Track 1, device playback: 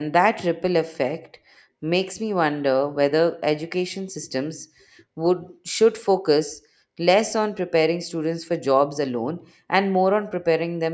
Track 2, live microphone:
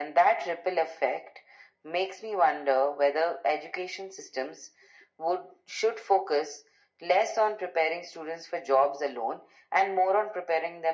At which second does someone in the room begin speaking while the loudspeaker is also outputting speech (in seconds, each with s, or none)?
none